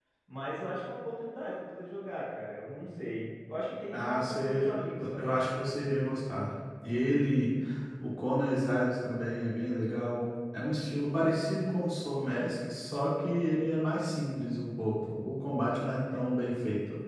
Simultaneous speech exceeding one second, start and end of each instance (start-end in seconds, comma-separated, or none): 3.9-5.4